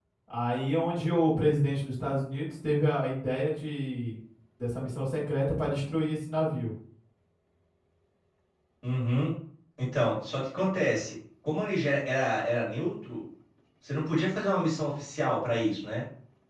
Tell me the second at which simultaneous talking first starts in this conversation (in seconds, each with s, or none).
none